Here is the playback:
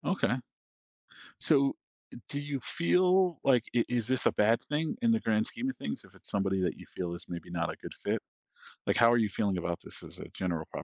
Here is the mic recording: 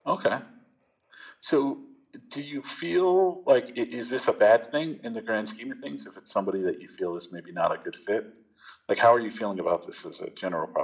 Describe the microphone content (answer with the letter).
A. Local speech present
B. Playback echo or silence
B